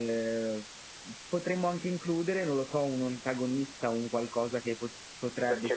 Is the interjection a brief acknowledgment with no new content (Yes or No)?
Yes